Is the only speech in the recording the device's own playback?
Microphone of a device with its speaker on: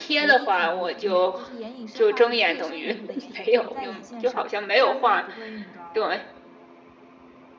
No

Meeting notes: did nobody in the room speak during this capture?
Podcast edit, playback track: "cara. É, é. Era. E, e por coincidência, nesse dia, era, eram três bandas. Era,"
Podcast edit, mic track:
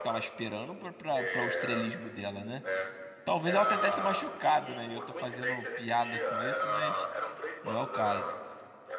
No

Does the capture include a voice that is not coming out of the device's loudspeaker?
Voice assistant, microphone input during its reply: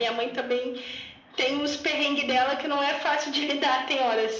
No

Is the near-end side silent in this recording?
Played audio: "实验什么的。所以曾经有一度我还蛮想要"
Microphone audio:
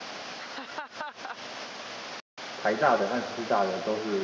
No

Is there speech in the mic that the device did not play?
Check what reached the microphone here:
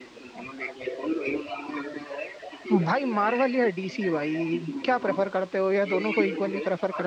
Yes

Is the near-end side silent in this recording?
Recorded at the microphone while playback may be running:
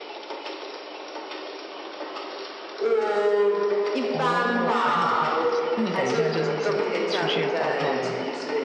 No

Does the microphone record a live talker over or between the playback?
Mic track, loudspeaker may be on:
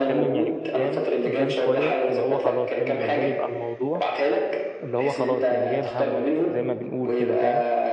Yes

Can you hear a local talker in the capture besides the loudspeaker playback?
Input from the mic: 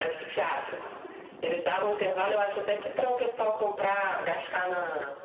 No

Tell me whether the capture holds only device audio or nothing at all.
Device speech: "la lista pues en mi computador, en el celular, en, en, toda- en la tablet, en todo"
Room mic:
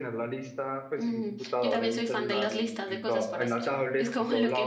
No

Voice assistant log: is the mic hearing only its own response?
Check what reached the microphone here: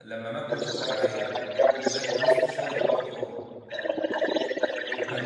No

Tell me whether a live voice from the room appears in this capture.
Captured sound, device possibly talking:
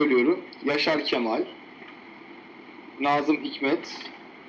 No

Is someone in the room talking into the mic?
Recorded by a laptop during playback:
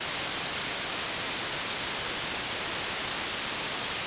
No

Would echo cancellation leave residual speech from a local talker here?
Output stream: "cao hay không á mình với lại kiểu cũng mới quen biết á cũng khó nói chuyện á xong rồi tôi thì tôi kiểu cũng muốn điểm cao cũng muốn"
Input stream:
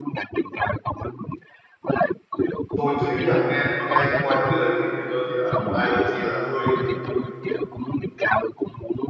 Yes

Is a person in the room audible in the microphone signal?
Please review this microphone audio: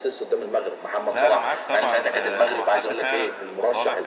Yes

